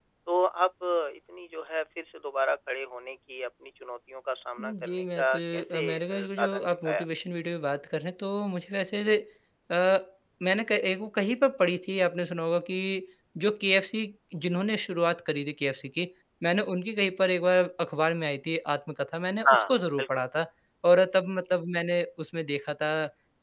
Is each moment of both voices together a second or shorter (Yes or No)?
No